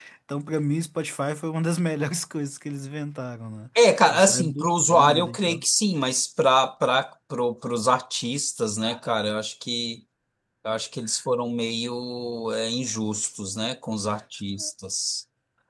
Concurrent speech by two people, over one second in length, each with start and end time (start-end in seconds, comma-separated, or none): 4.1-5.6